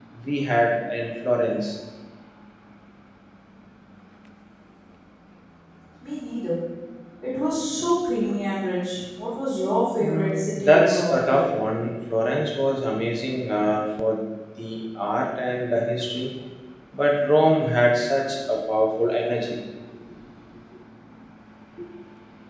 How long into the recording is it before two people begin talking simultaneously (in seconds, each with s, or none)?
10.0 s